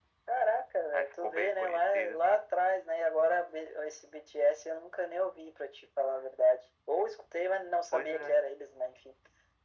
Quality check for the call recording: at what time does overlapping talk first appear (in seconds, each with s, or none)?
0.9 s